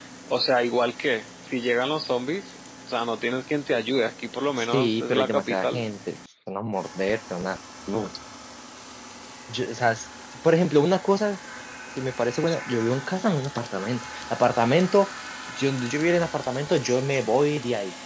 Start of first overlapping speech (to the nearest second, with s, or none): 5 s